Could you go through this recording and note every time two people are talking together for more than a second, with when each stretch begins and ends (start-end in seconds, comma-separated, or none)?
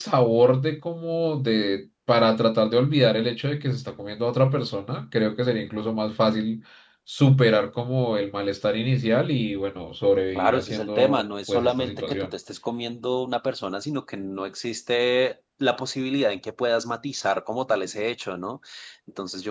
10.3-12.3